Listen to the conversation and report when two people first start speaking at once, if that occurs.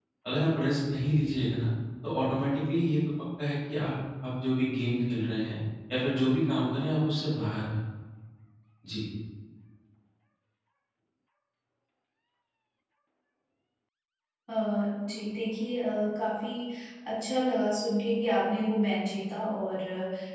none

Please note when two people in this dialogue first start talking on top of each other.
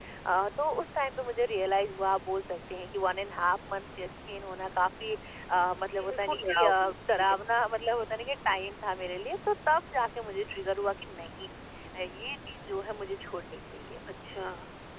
6.0 s

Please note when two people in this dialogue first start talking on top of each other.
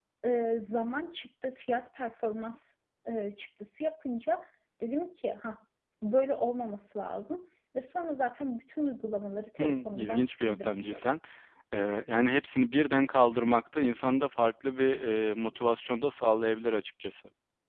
9.6 s

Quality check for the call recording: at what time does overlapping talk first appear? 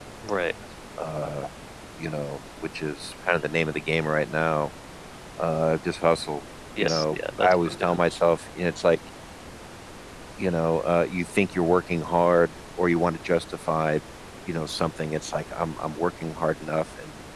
6.8 s

